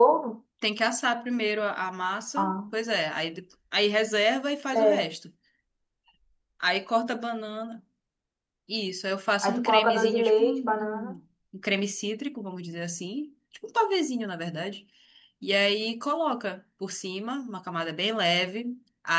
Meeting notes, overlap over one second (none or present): present